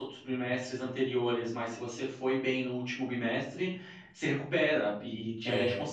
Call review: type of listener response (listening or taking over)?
listening